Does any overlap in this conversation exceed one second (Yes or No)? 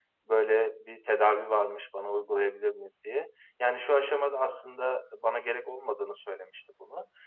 No